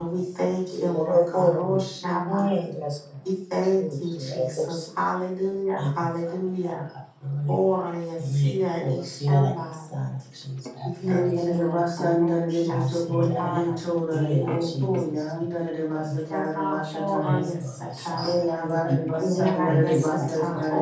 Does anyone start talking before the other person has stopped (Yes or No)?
Yes